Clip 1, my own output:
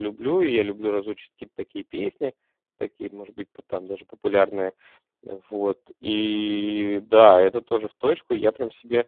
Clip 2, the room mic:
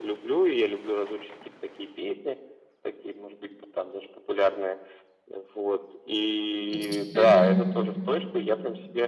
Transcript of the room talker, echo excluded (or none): Есть. Мгм.